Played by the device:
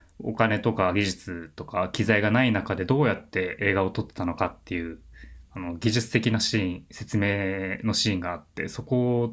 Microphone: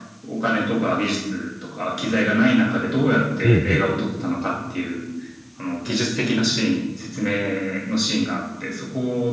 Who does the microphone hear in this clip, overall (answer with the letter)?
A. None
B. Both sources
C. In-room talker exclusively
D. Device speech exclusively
B